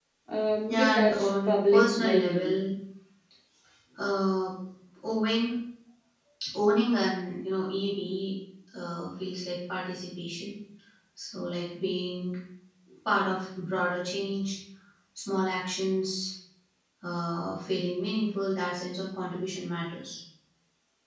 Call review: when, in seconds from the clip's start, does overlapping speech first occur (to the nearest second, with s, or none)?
1 s